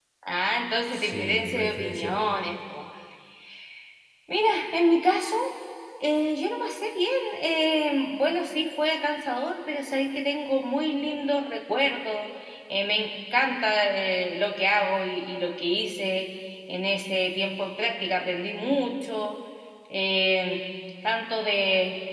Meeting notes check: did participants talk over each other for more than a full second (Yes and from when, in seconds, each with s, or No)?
Yes, from 0.9 s